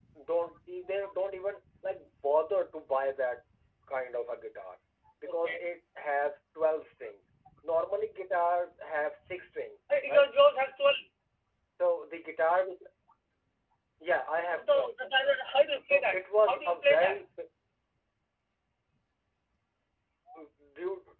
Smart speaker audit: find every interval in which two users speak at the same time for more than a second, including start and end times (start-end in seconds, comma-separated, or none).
15.9-17.2